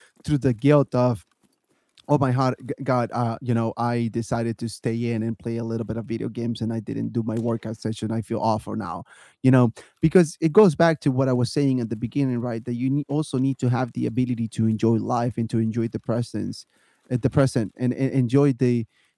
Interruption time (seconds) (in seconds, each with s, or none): none